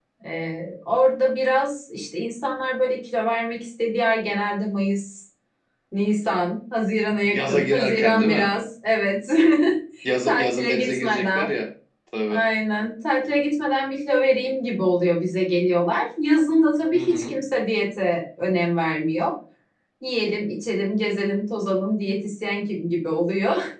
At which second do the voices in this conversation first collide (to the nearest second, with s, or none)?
7 s